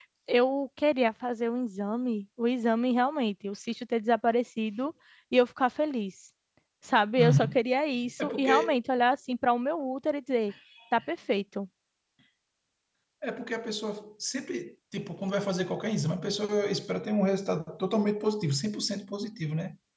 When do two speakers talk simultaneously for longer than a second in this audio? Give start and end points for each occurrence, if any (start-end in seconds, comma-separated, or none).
none